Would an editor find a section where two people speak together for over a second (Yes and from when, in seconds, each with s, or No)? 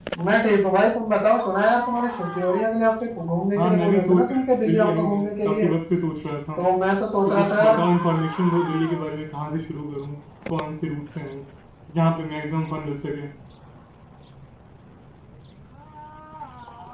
Yes, from 3.6 s